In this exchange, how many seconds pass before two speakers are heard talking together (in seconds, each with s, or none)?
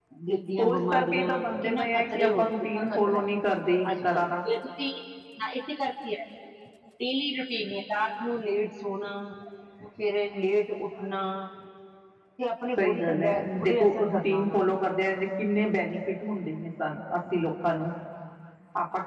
0.6 s